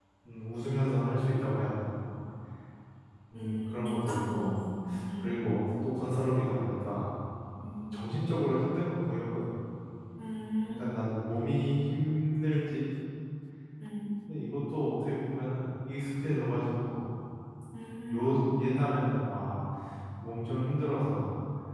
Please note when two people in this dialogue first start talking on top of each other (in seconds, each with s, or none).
3.4 s